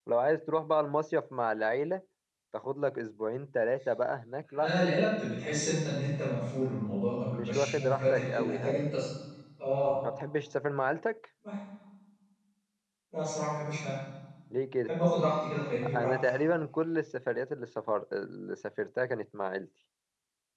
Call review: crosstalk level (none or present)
present